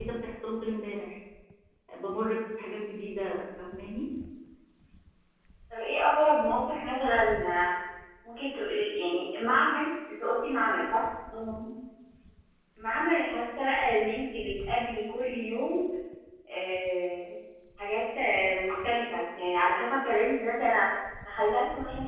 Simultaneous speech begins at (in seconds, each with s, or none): none